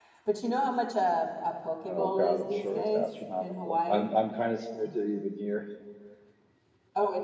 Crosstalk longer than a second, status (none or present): present